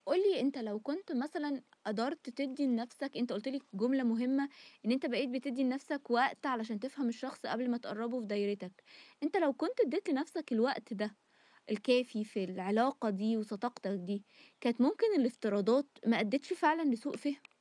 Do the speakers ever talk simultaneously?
No

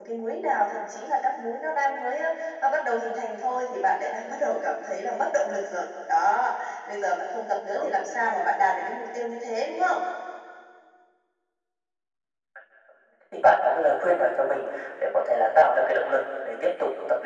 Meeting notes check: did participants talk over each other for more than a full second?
No

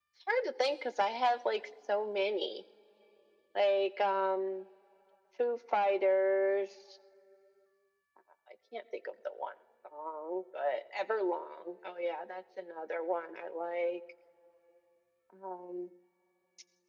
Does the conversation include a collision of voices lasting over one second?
No

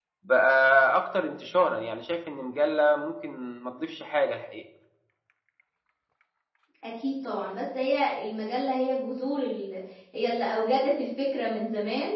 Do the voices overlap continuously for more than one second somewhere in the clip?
No

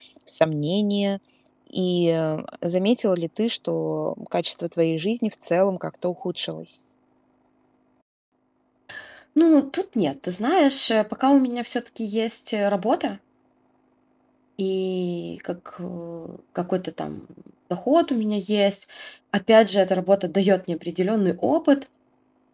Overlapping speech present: No

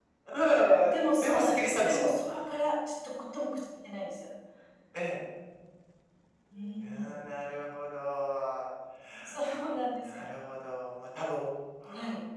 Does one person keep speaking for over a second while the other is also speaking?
Yes, from 0.8 s

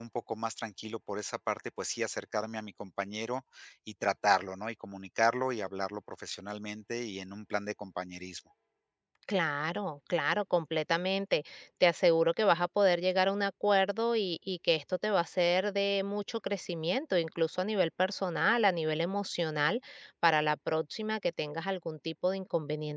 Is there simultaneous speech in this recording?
No

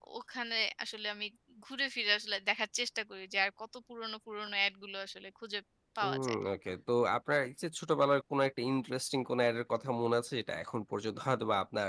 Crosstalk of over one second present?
No

